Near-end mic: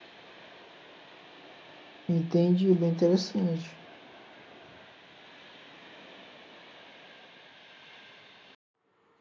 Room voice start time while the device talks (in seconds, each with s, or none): 2.1 s